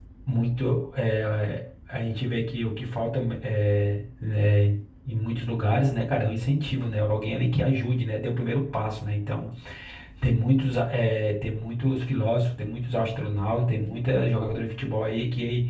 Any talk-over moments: No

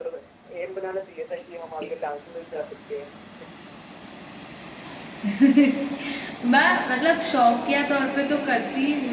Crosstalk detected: No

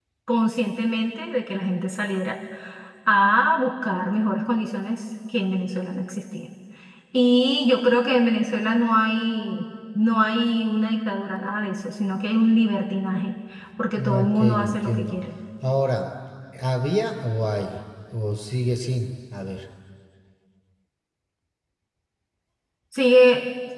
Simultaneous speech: Yes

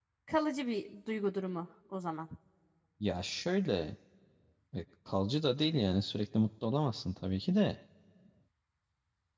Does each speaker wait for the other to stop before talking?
Yes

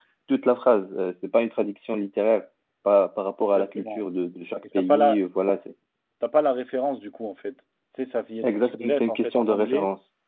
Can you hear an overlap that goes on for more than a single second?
Yes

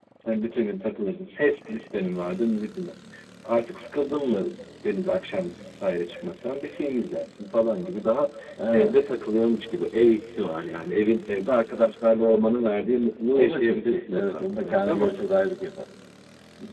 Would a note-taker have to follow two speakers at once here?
Yes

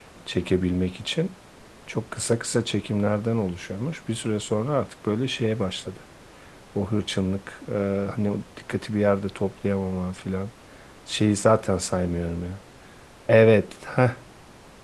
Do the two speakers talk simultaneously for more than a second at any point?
No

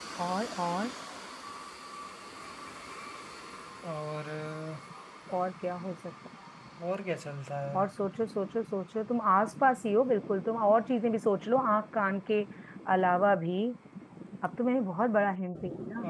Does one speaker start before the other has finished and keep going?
No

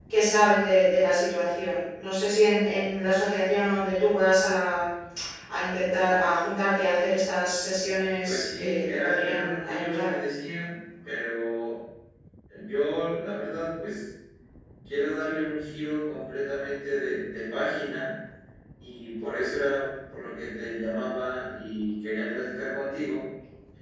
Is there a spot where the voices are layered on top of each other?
Yes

